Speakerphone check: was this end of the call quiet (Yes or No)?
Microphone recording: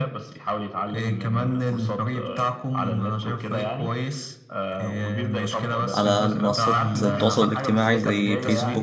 No